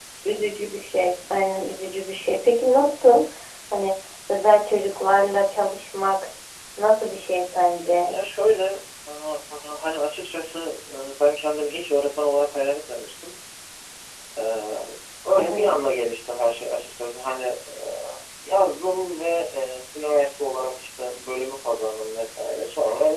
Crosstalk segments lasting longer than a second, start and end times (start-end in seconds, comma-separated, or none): none